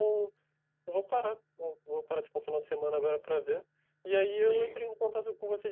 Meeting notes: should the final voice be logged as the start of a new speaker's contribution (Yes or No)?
No